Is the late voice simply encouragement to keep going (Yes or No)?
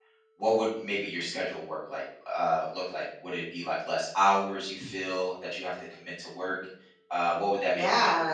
No